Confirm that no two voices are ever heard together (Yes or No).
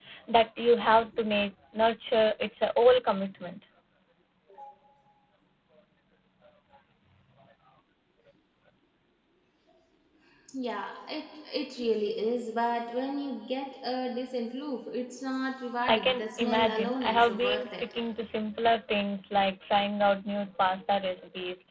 No